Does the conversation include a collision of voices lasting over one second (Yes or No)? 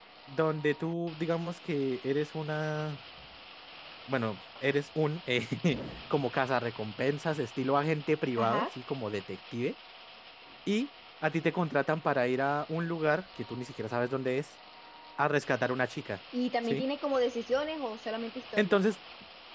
No